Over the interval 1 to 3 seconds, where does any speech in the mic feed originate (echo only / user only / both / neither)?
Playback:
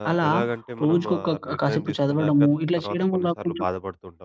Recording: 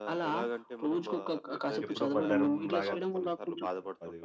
both